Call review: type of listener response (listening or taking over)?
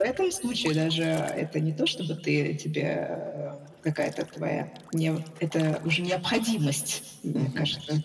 taking over